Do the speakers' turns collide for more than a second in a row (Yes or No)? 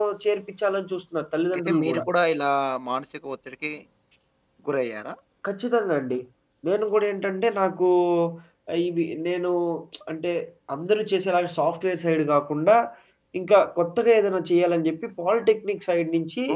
No